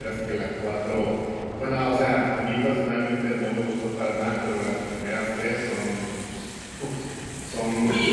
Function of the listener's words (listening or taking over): taking over